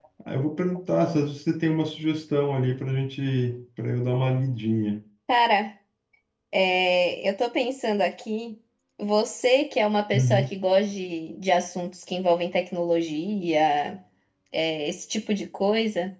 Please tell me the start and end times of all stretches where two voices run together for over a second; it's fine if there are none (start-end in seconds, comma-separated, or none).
none